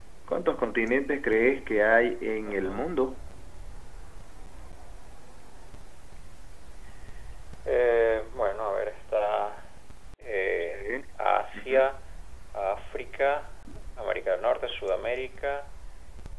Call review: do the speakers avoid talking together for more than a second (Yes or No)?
Yes